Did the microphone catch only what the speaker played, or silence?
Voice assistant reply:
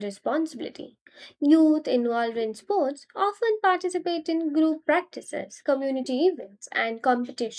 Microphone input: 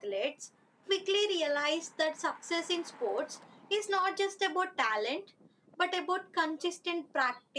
No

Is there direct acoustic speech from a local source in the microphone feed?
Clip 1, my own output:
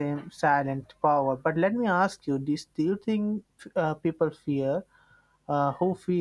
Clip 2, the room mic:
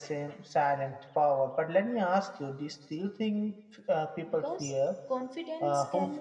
Yes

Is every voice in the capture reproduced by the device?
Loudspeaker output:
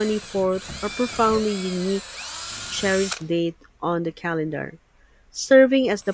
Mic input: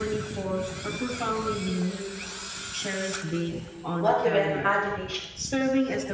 No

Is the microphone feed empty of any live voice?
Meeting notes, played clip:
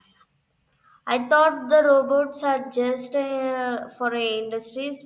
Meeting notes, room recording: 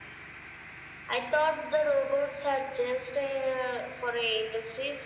Yes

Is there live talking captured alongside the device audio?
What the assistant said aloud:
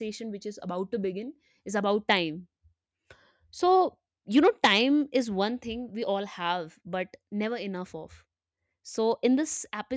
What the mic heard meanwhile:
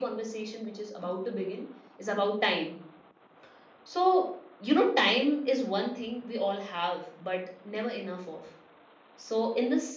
No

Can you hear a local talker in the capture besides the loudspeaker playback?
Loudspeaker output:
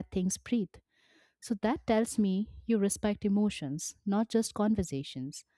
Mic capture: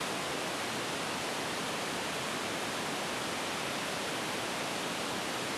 No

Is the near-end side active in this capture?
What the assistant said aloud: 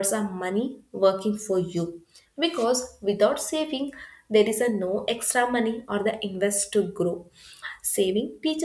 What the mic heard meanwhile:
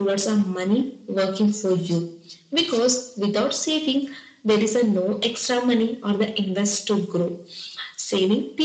No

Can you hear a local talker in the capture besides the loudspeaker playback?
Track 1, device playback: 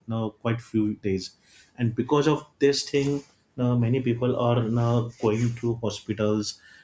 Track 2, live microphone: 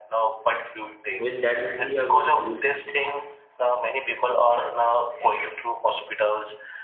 Yes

